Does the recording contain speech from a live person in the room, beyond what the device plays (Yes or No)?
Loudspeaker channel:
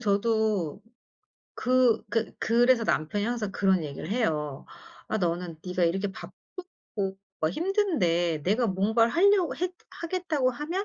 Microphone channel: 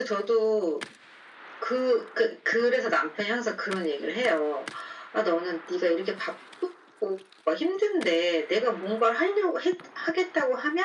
No